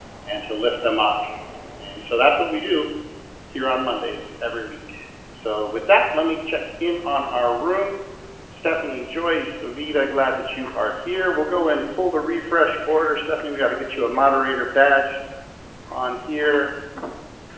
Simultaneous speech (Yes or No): No